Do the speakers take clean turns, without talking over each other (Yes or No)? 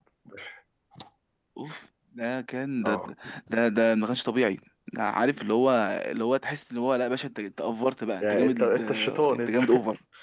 No